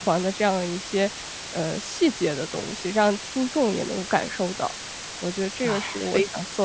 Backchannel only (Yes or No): No